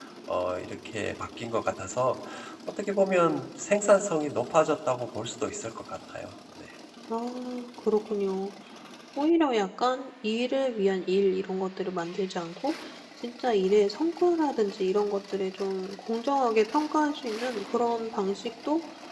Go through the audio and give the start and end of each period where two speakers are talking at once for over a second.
none

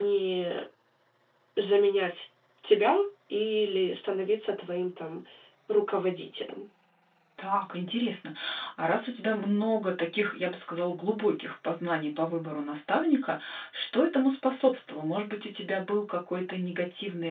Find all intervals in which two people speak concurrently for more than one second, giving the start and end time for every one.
none

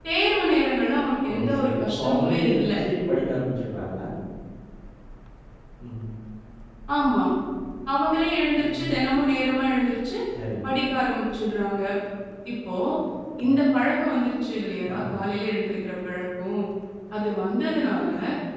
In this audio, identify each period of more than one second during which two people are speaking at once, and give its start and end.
1.3-2.7

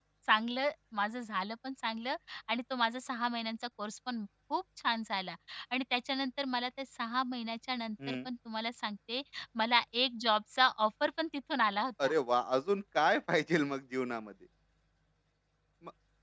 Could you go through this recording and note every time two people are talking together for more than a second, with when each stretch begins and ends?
none

